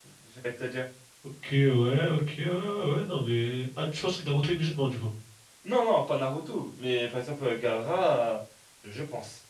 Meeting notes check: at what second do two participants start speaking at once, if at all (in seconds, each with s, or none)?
none